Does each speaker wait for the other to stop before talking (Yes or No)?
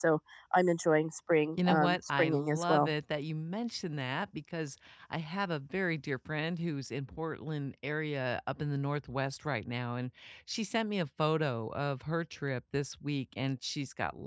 No